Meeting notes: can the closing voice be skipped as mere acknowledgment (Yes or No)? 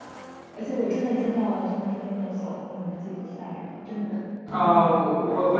No